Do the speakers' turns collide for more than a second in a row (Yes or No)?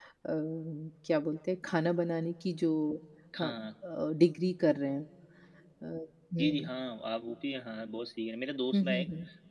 No